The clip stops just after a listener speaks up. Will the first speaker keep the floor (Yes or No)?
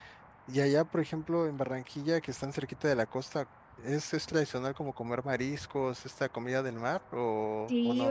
No